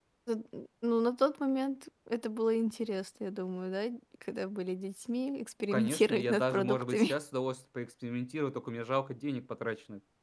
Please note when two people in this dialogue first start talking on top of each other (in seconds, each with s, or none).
5.7 s